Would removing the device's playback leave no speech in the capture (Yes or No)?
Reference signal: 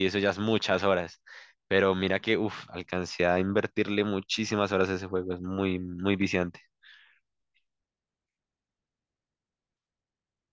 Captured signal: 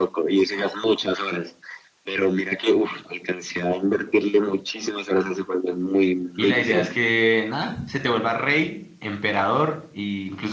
No